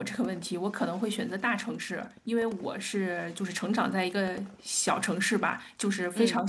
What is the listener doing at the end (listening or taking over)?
listening